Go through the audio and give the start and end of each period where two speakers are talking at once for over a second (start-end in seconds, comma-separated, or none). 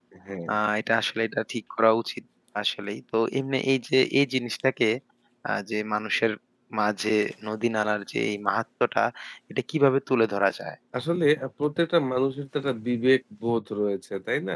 none